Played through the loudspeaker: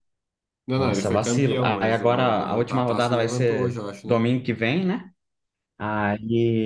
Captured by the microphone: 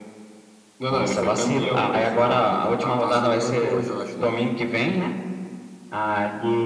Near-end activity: none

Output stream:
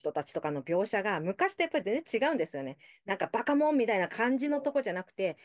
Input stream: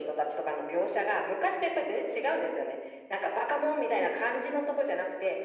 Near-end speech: none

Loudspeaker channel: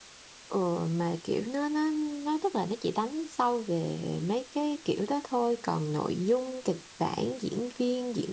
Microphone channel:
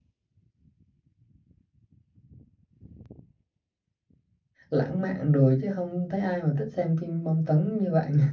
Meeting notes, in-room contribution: present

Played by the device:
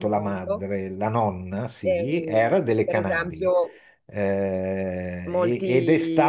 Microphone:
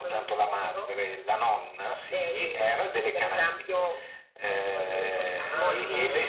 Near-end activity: present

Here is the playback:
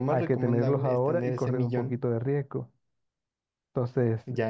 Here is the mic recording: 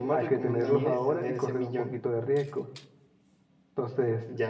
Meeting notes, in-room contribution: present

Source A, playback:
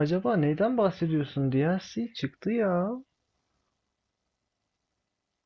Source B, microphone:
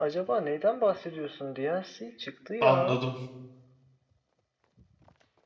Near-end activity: present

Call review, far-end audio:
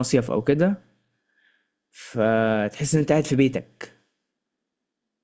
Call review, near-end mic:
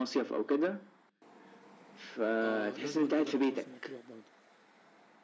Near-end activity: present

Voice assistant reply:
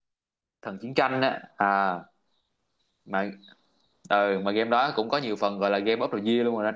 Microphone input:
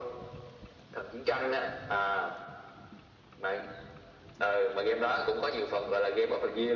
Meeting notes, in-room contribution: none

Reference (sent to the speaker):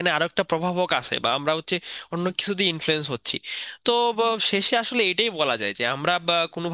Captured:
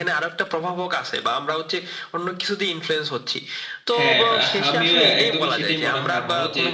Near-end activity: present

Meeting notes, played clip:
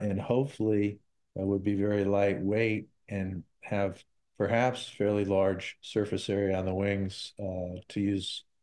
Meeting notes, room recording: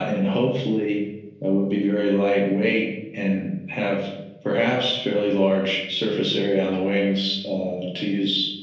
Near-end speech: none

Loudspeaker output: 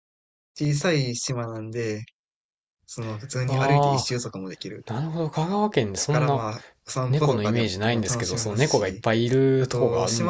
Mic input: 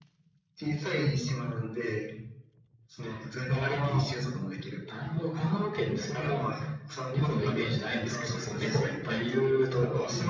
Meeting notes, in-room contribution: none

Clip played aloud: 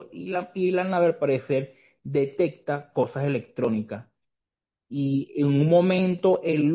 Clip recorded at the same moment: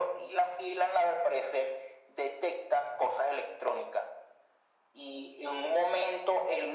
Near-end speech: none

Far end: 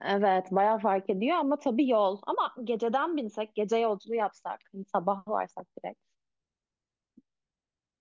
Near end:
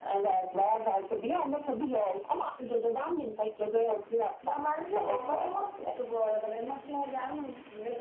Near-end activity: present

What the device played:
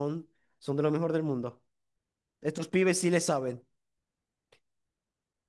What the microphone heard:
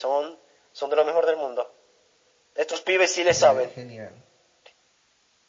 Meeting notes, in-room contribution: present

